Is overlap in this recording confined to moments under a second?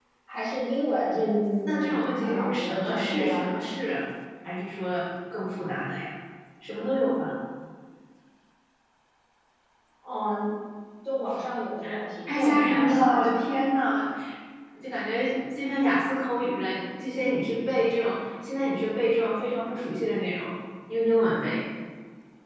No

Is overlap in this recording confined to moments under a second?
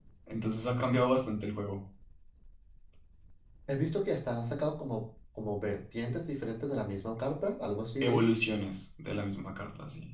Yes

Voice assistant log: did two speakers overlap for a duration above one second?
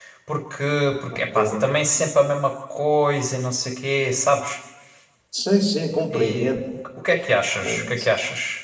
No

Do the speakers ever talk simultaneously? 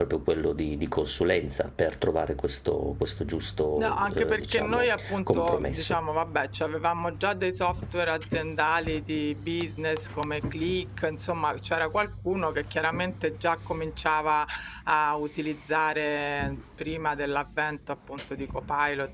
Yes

